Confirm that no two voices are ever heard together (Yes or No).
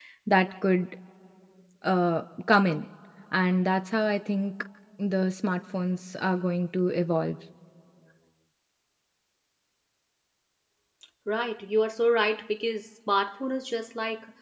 Yes